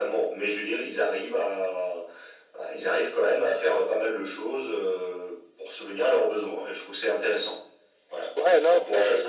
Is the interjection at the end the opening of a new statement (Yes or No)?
Yes